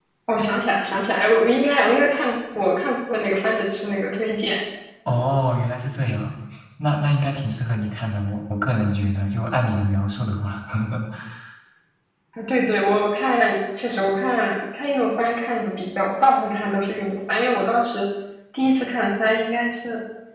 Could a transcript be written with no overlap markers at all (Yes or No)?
Yes